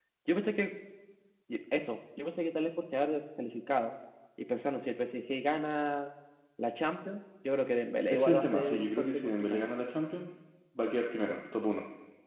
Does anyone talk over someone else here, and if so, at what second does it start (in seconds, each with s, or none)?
8.1 s